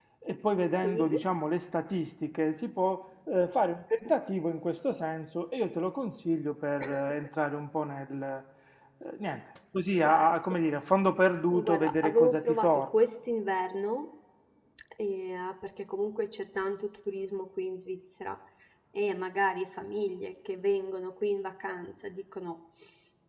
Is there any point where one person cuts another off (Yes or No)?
Yes